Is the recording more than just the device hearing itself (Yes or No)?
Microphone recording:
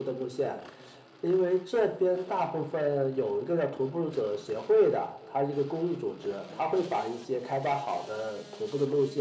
No